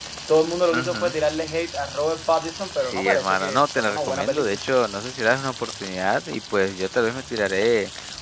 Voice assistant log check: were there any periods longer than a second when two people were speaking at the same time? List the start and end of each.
2.8-4.6

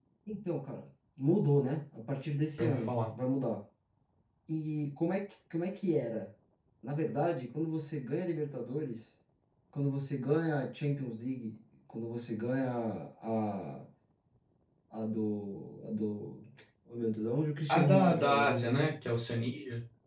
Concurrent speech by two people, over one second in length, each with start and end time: 17.7-18.9

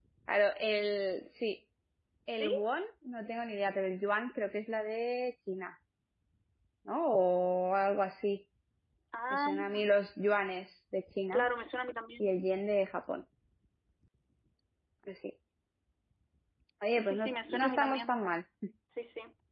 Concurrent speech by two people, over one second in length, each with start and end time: 17.0-18.2

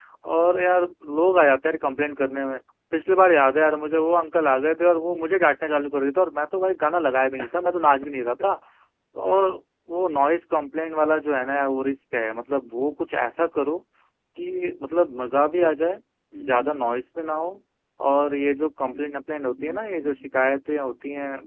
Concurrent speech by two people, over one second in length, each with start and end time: 18.9-20.3

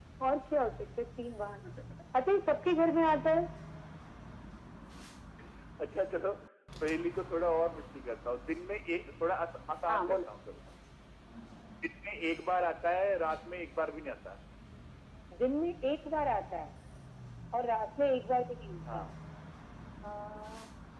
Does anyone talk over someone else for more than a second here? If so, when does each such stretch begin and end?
none

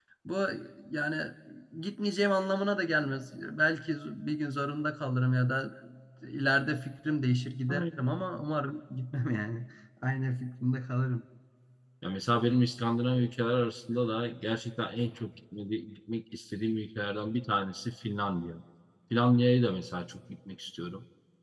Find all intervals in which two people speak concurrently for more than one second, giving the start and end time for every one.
none

